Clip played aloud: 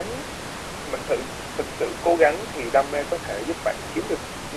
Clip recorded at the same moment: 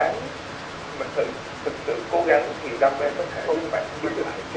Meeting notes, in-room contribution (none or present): present